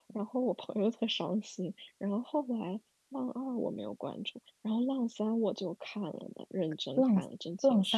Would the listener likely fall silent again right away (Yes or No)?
No